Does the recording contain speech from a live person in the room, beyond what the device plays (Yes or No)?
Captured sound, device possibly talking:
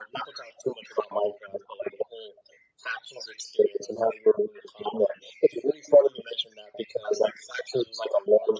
No